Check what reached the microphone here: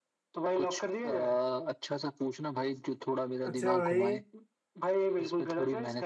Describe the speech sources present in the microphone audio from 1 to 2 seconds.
echo only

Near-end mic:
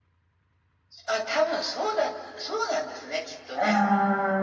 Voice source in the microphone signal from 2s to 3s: echo only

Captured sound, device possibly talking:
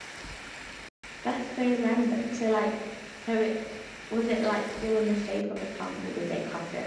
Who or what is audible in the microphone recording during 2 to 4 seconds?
user only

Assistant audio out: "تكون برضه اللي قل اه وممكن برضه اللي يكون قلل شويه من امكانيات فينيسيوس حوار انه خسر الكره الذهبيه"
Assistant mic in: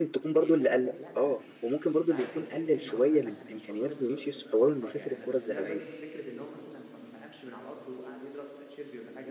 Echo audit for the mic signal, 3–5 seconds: both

